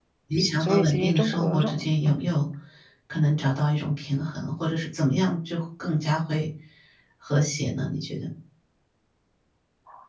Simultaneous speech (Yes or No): Yes